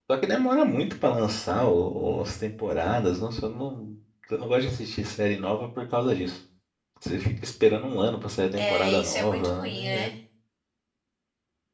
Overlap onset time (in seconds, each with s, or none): 8.6 s